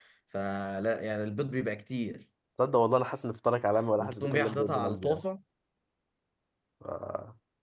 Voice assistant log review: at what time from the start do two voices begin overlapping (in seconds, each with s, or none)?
4.0 s